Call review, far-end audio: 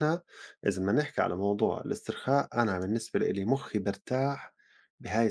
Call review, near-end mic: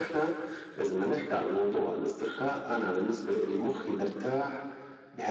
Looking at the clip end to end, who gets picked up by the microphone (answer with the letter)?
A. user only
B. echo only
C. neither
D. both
B